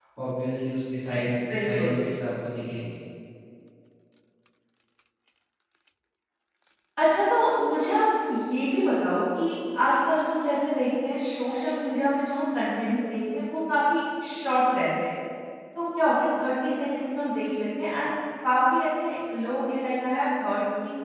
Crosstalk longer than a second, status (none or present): none